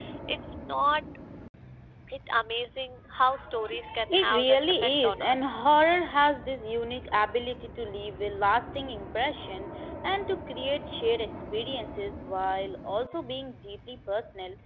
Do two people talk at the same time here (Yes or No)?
Yes